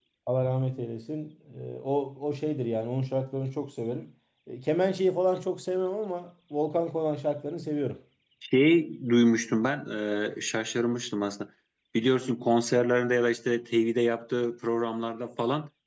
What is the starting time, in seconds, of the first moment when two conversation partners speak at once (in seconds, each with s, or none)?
none